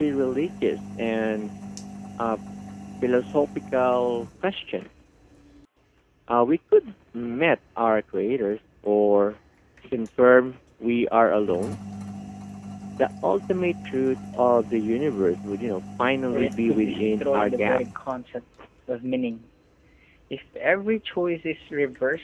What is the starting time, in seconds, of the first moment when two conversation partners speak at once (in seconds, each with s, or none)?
16.3 s